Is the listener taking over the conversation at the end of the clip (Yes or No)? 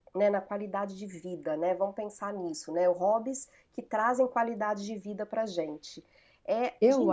Yes